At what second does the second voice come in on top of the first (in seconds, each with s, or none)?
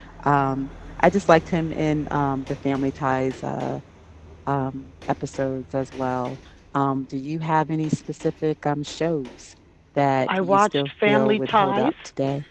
10.3 s